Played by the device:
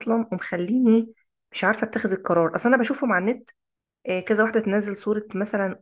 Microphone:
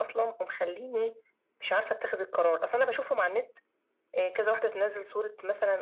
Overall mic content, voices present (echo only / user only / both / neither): echo only